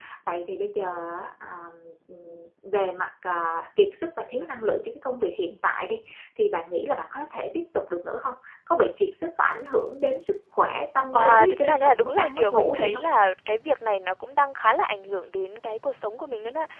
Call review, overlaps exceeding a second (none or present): present